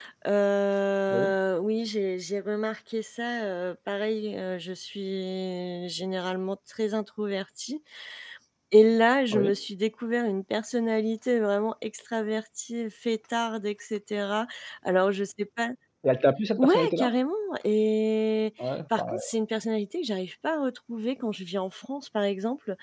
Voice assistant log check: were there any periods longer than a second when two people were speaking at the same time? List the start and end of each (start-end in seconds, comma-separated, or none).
none